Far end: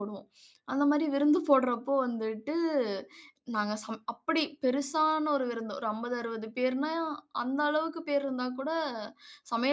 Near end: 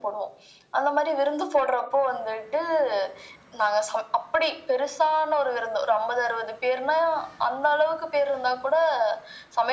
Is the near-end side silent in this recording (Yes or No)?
Yes